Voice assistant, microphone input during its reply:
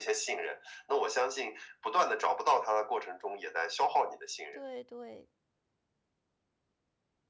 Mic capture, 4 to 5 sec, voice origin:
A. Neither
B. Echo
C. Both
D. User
C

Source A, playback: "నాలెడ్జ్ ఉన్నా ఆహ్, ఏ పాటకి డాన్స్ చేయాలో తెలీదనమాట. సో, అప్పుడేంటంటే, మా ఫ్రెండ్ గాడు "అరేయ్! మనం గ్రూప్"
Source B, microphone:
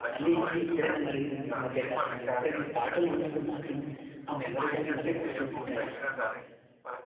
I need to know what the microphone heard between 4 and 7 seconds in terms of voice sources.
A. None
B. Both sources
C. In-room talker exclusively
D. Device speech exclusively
B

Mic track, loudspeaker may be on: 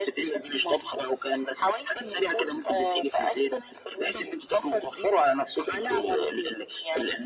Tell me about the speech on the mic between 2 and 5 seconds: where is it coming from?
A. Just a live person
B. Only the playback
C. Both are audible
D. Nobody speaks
B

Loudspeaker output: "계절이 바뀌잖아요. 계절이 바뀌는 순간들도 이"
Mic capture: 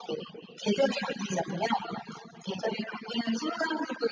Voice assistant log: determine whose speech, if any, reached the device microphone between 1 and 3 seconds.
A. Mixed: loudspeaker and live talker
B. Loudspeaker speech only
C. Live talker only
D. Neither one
B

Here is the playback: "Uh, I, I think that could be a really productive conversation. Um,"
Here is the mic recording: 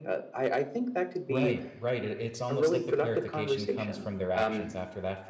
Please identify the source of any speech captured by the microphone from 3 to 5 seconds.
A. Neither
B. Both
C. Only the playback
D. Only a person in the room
B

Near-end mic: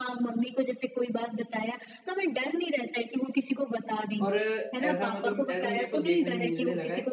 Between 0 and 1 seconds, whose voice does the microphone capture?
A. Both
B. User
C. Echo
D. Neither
C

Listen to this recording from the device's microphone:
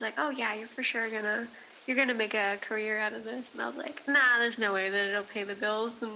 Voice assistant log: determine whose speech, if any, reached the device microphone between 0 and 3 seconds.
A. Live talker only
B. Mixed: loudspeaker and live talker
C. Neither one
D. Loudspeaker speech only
D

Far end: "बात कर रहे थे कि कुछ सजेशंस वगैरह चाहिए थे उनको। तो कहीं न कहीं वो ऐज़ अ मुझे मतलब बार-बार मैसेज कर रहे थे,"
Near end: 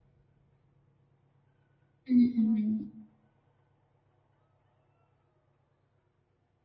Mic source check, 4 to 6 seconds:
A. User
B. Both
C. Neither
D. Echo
C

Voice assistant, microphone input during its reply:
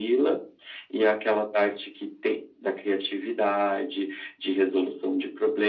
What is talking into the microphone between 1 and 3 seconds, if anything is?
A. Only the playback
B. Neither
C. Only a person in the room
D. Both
A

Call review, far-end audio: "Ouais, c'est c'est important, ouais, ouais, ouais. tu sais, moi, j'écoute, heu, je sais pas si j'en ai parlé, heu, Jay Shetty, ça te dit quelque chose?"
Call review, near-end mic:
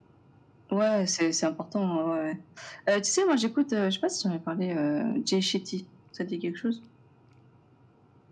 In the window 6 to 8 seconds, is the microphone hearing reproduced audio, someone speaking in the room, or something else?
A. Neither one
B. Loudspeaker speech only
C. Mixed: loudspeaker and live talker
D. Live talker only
B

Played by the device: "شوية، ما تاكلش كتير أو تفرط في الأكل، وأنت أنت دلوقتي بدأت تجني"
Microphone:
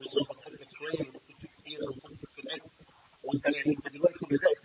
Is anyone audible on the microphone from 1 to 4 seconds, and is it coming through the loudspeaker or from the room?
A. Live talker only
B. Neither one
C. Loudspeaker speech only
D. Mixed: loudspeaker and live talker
C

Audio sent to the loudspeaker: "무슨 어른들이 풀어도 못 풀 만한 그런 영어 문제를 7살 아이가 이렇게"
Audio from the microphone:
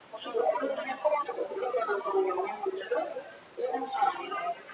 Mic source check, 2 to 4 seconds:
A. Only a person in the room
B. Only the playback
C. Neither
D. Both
B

